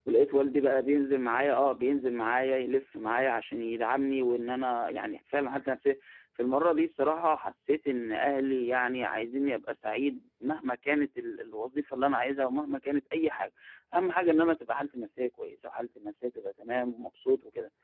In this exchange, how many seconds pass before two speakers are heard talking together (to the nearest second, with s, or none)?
none